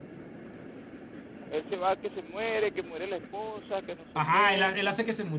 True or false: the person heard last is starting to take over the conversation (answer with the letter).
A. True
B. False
A